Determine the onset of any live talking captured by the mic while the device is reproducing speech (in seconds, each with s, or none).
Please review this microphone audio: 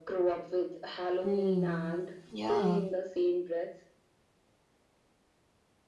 1.2 s